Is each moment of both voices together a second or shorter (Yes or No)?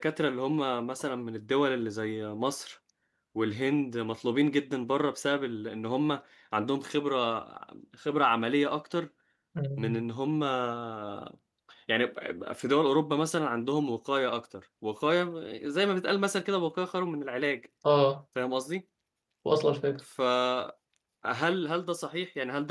Yes